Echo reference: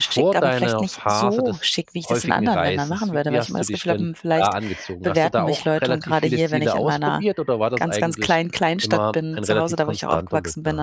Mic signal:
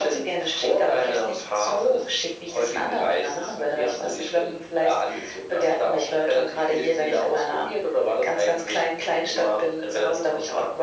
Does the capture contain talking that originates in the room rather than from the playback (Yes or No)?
No